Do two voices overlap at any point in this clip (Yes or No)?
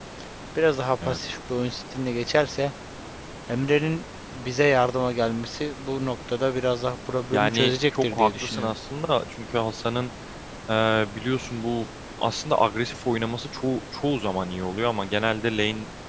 Yes